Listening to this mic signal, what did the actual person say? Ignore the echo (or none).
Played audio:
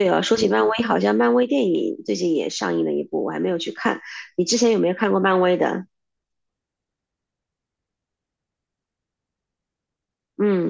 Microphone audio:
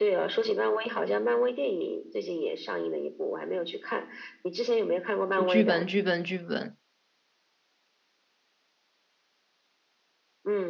剧本剧本剧本，